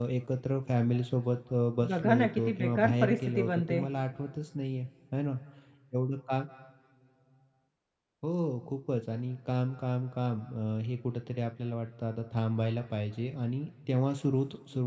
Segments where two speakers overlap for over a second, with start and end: 1.9-3.8

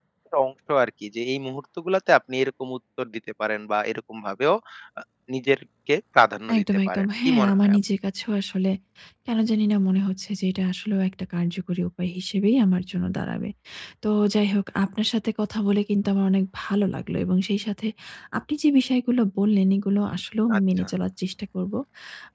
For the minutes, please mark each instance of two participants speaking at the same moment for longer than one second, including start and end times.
6.6-7.8

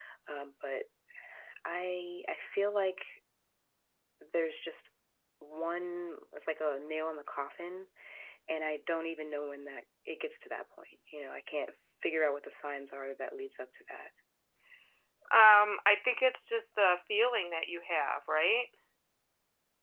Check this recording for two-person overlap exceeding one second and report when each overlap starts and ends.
none

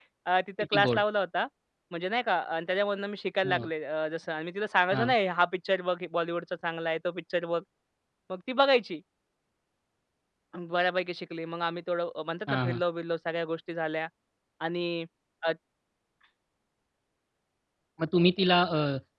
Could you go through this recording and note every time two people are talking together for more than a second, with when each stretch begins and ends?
none

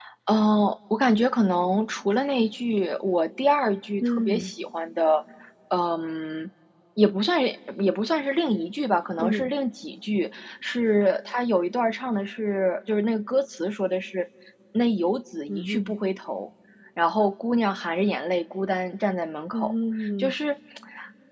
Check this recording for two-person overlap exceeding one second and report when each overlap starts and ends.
none

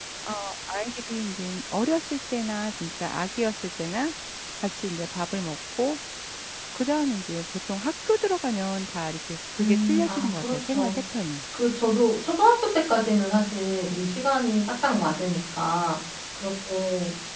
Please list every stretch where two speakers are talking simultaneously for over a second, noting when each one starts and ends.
9.6-10.9

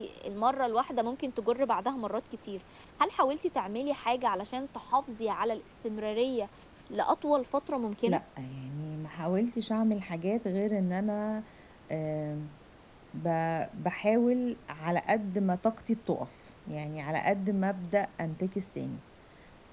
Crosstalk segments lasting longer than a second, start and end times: none

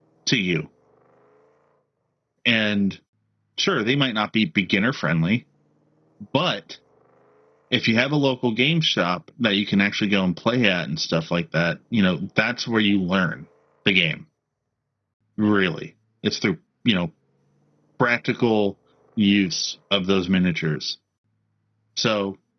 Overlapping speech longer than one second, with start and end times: none

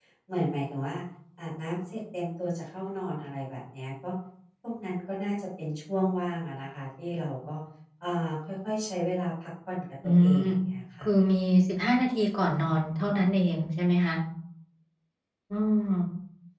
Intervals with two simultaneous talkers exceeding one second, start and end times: none

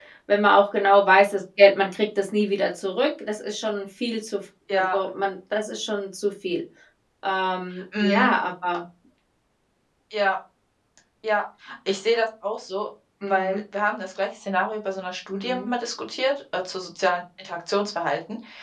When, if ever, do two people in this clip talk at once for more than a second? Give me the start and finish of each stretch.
none

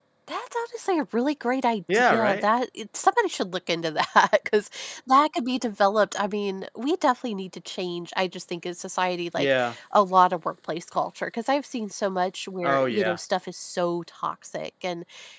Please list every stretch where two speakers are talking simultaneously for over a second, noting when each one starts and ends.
none

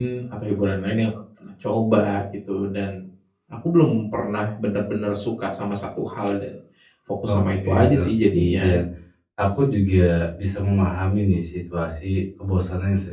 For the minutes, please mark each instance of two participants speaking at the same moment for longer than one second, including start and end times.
7.3-8.8

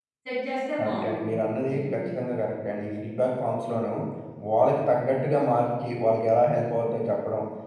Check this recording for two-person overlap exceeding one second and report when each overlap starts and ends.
0.8-2.0

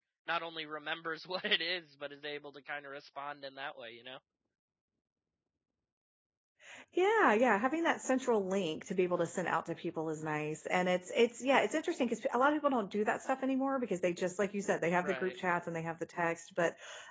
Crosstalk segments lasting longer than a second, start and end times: none

